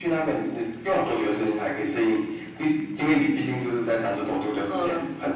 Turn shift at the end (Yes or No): Yes